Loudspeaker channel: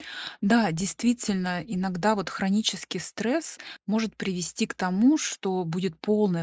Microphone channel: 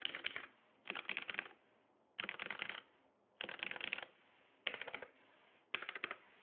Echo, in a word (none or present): none